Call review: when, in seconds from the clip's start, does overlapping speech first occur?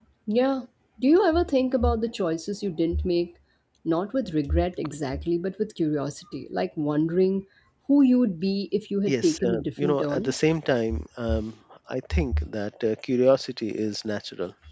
9.1 s

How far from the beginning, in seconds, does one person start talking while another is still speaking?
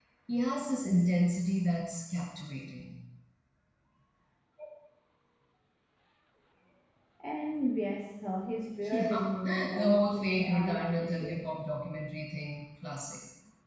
8.8 s

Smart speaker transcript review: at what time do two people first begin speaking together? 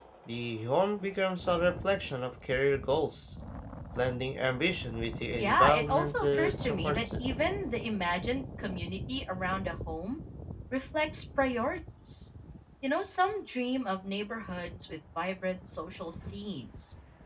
5.4 s

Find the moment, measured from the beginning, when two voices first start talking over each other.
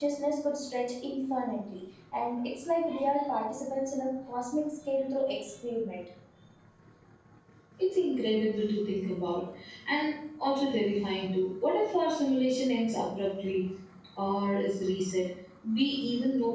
none

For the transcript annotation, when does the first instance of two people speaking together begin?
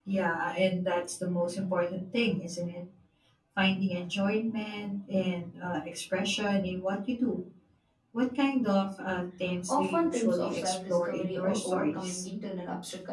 9.7 s

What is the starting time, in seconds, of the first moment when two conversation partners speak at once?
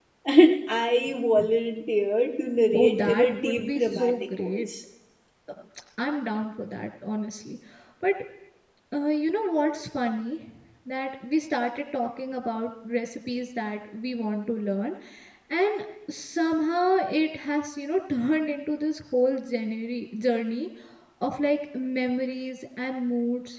2.7 s

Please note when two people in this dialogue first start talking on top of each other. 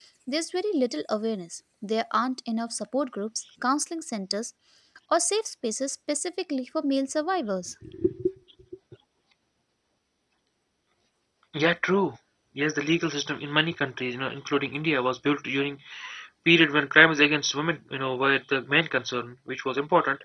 none

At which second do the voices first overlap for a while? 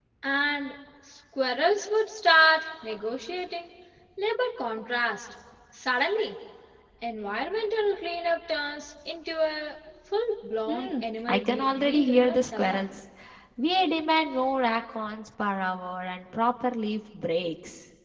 10.7 s

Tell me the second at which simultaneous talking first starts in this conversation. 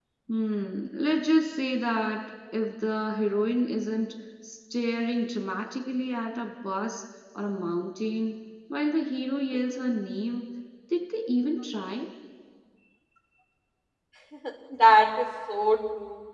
none

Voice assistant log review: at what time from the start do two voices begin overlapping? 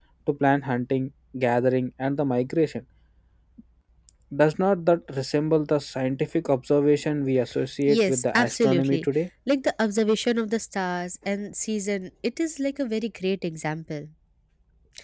7.8 s

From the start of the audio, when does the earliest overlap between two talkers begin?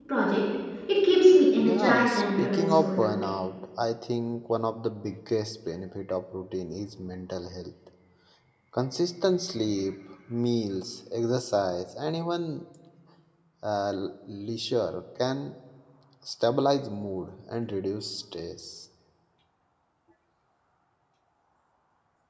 1.6 s

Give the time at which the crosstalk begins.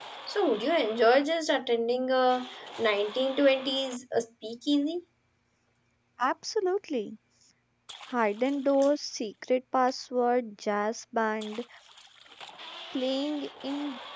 none

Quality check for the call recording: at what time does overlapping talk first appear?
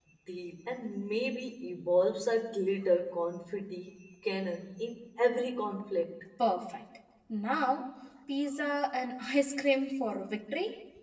none

